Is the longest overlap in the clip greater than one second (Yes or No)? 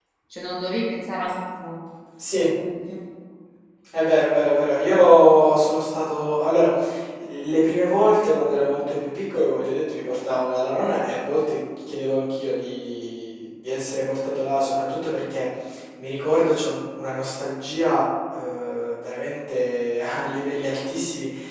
No